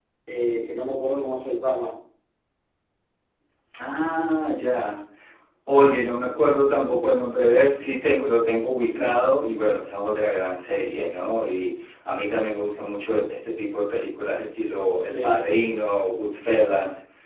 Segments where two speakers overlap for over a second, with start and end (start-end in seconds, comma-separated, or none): none